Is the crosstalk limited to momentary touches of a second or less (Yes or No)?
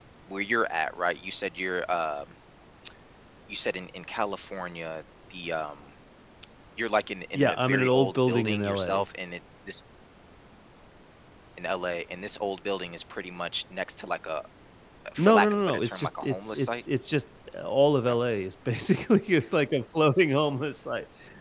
No